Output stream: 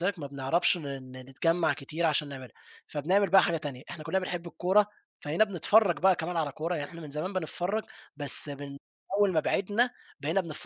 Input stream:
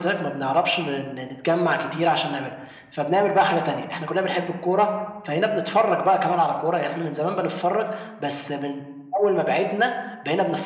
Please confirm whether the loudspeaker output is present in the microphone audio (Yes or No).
Yes